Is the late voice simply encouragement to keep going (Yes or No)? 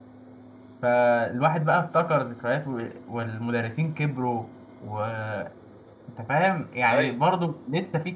Yes